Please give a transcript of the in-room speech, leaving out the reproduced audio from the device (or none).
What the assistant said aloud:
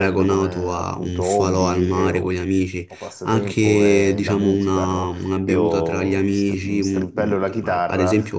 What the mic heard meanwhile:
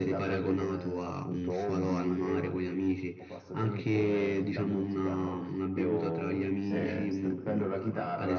Eh,